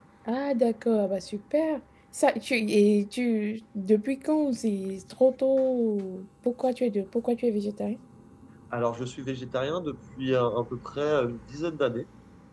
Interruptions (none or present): none